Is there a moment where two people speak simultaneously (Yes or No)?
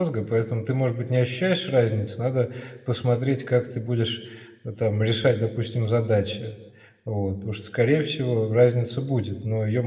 No